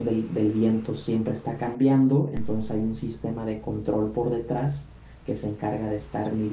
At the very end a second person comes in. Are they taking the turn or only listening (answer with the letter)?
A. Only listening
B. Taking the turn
A